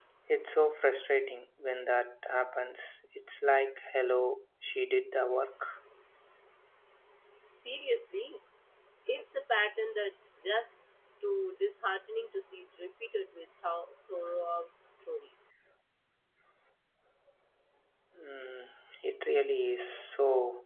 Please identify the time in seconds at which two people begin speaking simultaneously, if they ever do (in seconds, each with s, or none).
none